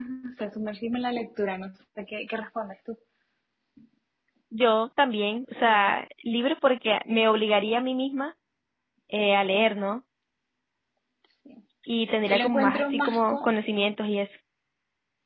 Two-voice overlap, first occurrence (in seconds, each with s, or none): 12.3 s